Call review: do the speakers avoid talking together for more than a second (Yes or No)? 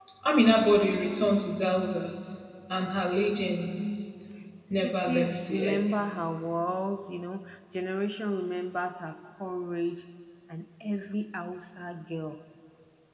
No